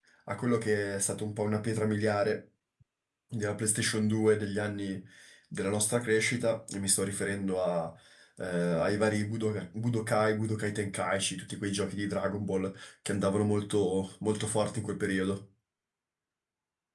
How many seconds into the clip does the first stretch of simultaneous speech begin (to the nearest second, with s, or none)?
none